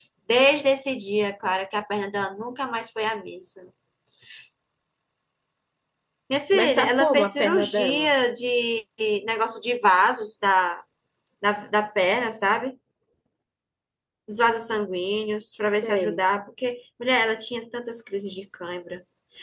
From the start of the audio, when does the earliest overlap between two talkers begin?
6.6 s

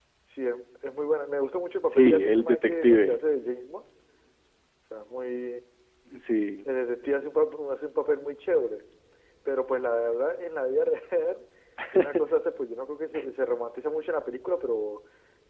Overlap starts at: 1.9 s

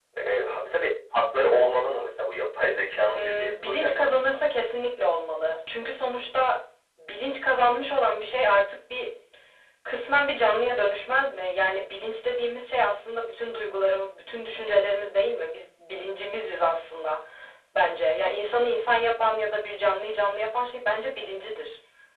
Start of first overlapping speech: 3.1 s

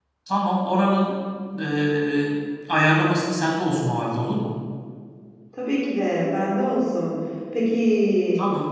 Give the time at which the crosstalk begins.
none

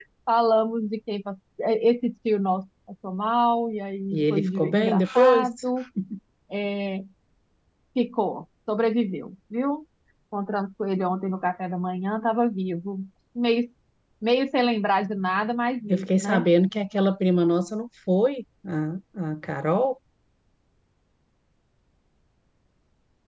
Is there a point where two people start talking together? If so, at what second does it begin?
4.1 s

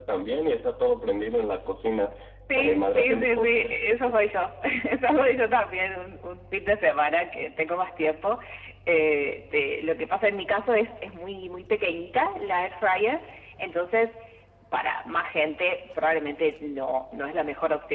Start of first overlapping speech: 2.6 s

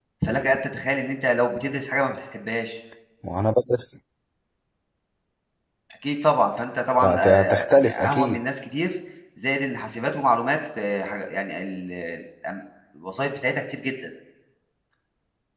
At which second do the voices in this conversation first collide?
7.0 s

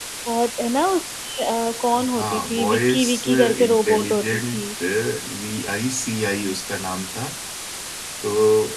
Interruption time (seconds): 1.9 s

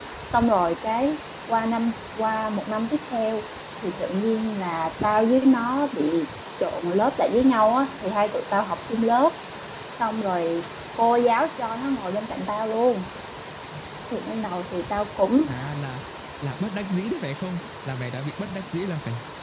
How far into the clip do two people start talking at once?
none

